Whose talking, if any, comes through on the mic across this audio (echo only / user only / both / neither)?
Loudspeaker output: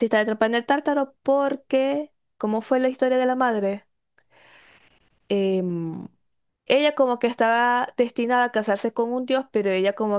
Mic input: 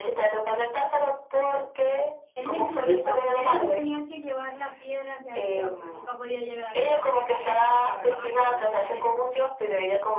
both